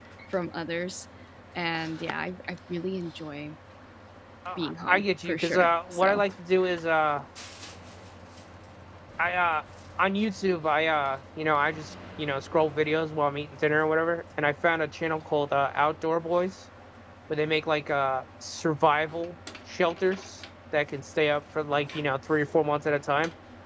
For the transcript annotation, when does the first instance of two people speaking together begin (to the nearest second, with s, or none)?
5 s